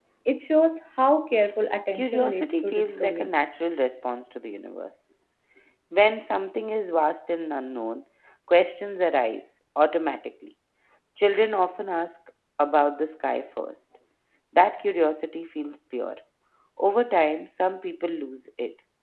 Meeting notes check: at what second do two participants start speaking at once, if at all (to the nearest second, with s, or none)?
2 s